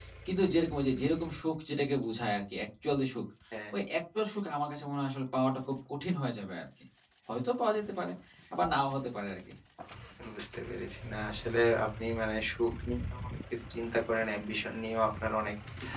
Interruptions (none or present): none